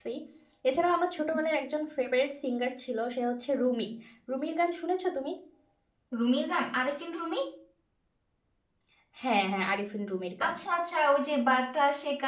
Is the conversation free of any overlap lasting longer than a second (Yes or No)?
Yes